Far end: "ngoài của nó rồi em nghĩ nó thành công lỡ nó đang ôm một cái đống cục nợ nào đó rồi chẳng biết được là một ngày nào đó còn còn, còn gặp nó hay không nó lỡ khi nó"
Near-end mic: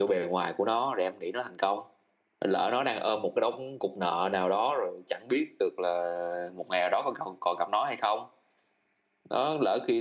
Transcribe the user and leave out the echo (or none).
none